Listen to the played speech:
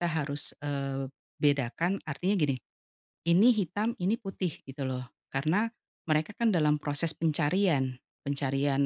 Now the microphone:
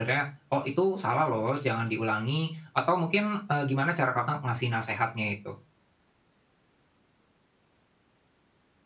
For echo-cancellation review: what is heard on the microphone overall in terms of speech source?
user only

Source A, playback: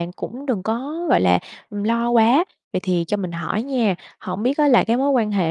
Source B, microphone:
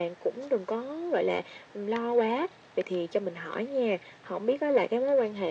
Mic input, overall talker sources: echo only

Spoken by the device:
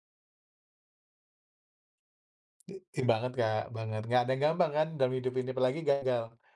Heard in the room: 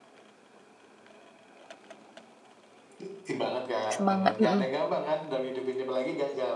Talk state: both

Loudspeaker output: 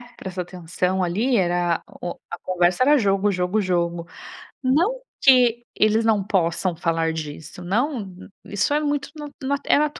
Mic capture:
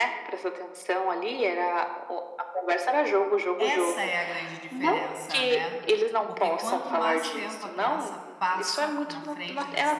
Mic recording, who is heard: both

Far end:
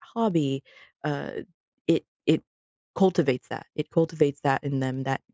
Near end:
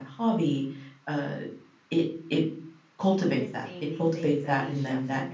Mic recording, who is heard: both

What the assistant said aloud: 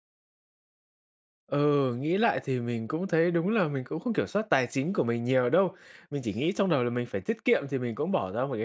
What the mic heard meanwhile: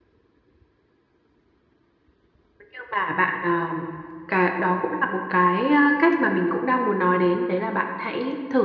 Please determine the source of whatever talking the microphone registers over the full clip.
user only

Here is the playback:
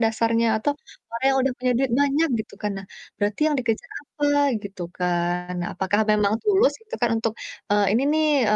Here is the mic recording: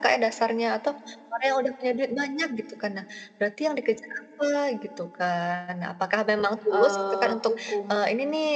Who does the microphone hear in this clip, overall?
both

